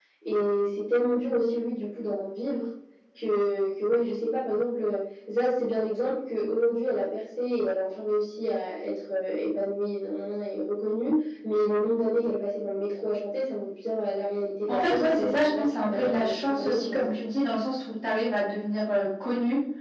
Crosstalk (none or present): present